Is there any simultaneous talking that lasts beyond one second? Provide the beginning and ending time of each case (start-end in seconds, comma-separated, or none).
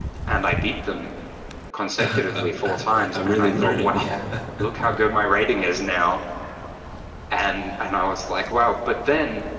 2.0-4.0